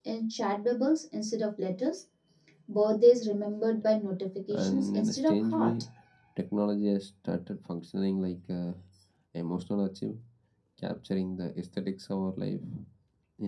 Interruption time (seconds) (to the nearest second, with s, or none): 5 s